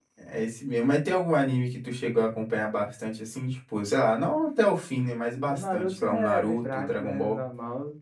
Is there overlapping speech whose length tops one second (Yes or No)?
Yes